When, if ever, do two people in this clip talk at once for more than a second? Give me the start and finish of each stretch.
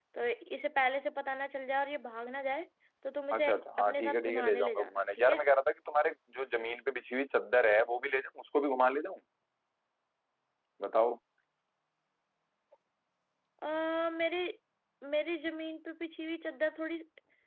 3.3-5.4

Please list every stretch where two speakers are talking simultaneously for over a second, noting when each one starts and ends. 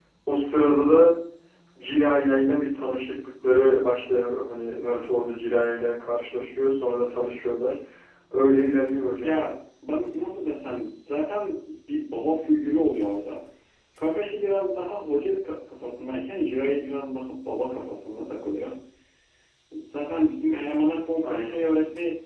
none

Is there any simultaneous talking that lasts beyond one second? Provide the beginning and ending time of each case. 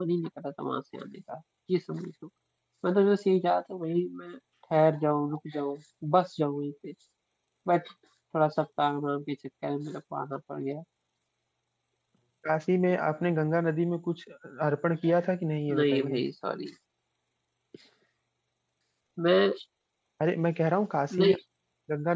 none

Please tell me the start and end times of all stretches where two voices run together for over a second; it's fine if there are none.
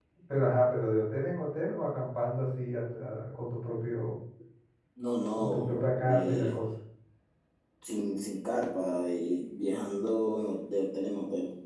5.4-6.6

